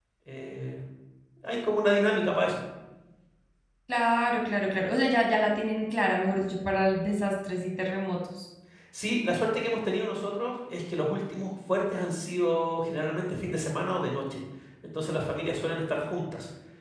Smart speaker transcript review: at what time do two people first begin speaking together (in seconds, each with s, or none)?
none